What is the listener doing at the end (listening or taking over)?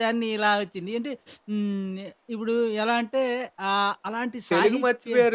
taking over